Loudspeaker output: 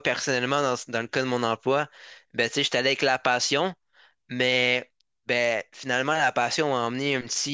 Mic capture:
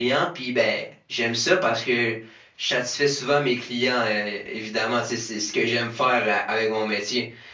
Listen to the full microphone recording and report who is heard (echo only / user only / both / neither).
user only